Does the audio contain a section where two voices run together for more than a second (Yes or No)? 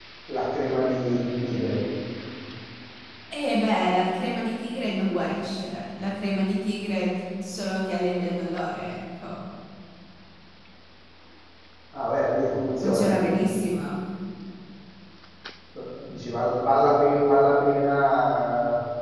No